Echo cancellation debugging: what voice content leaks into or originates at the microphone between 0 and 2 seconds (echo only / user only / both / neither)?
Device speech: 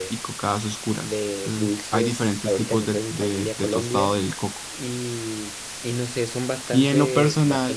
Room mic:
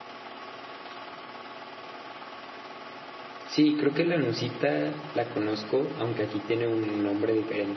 neither